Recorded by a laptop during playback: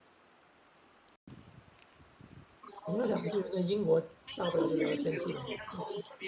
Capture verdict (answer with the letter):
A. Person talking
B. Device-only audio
A